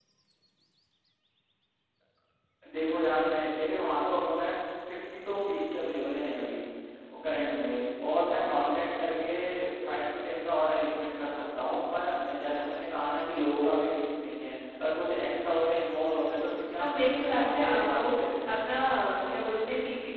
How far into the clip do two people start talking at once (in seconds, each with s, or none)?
16.8 s